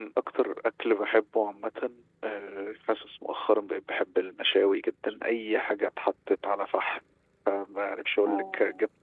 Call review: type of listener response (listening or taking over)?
listening